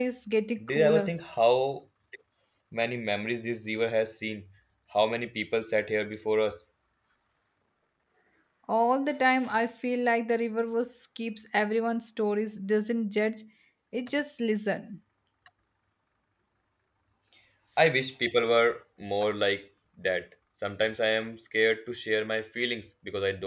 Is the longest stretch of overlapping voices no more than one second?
Yes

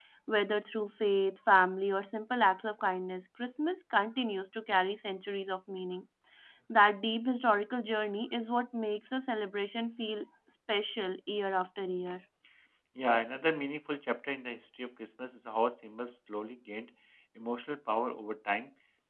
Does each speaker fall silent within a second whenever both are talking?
Yes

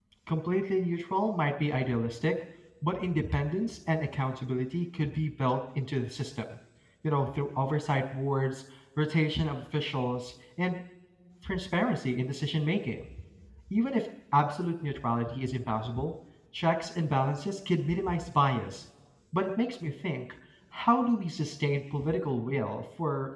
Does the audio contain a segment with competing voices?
No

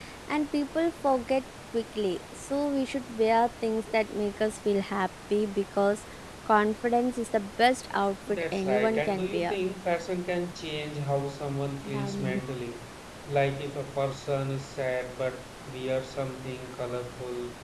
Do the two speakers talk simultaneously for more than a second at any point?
Yes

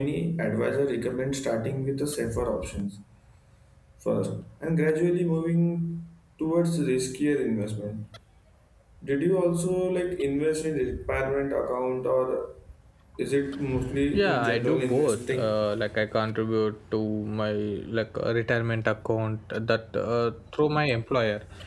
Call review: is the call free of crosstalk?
No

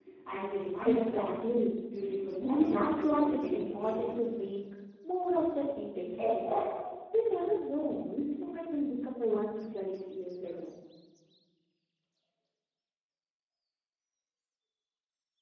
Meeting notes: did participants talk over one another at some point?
Yes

